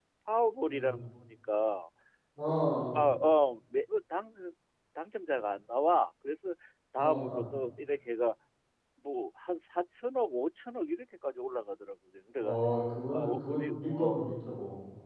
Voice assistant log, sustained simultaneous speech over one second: present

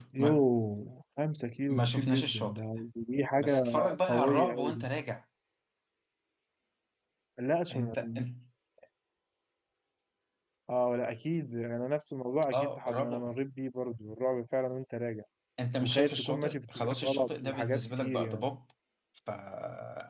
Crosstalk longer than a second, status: present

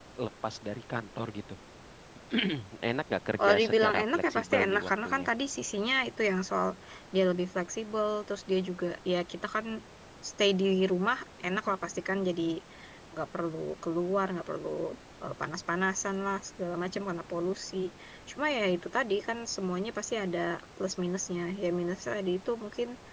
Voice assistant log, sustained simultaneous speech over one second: present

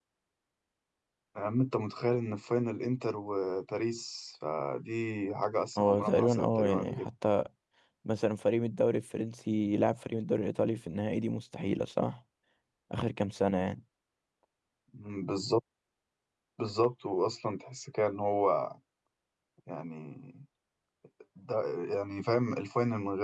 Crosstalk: present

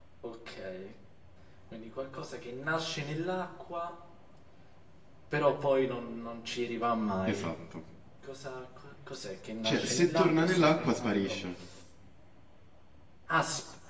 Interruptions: present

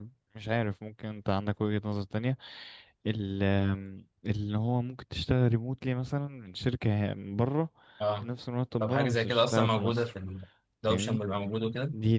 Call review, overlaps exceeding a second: present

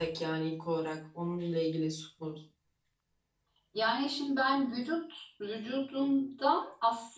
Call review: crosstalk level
none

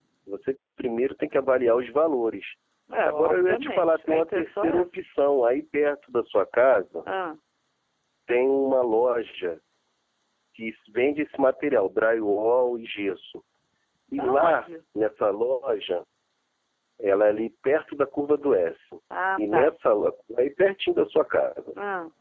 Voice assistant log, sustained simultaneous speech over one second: present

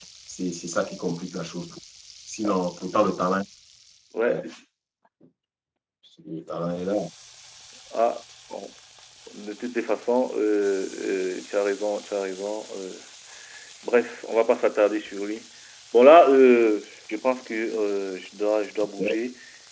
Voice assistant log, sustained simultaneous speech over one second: none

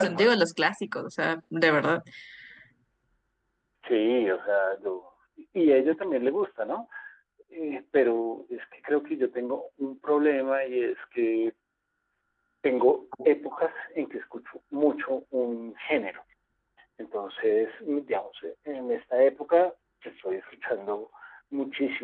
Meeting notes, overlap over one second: none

